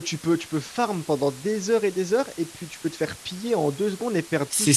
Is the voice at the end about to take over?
Yes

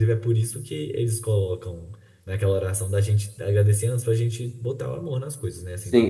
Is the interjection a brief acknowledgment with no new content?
No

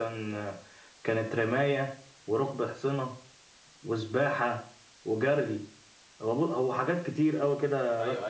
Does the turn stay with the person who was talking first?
No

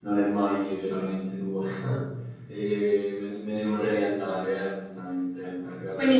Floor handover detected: Yes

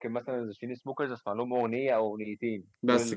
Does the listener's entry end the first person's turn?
No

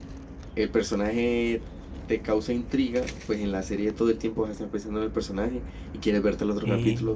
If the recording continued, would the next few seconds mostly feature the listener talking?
No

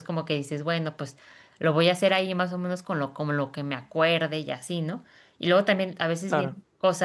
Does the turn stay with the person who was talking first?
Yes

